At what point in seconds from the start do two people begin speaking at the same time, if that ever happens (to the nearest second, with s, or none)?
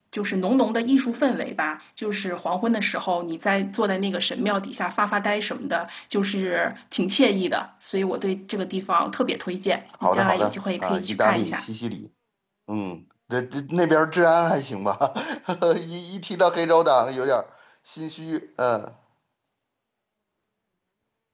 10 s